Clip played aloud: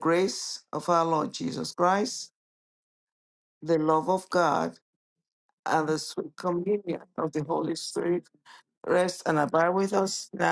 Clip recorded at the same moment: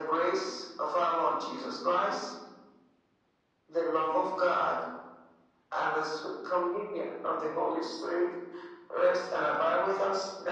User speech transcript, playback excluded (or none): none